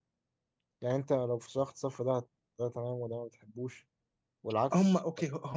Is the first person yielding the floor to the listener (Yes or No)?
Yes